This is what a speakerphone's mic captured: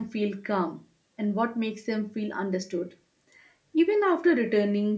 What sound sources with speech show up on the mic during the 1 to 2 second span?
user only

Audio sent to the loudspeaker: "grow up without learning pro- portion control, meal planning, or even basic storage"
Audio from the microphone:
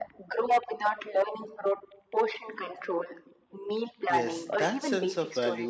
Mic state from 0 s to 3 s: echo only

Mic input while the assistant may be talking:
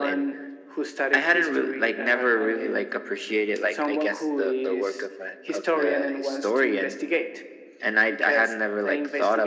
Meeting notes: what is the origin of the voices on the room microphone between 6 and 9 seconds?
echo only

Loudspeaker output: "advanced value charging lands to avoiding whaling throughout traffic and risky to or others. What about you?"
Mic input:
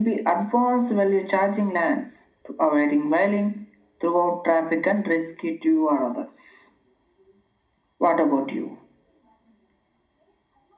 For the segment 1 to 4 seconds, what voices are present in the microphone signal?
echo only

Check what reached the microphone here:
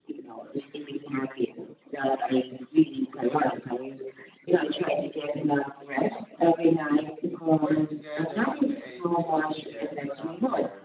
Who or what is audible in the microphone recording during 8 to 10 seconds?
both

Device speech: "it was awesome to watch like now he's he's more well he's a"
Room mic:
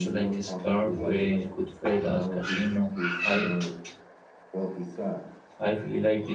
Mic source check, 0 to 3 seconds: both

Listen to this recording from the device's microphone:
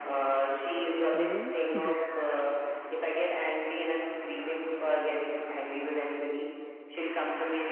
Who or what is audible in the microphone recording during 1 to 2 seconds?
both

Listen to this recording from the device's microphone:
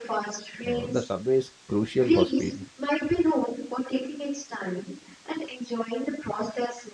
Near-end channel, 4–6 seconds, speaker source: echo only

